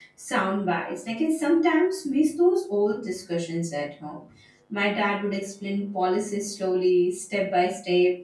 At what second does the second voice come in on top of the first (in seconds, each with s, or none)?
none